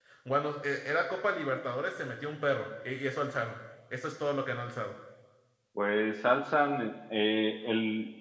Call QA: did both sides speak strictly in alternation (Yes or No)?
Yes